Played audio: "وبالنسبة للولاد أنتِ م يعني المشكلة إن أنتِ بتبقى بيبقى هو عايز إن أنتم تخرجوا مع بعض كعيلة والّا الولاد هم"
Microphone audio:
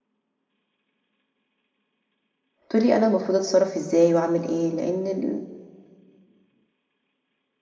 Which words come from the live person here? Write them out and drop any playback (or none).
تقول لي أنا المفروض أتصرّف إزاي وأعمل إيه؟ لإن ال